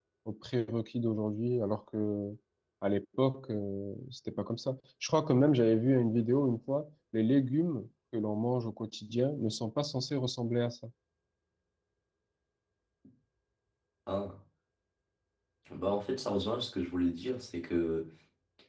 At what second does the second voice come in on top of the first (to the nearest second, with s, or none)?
none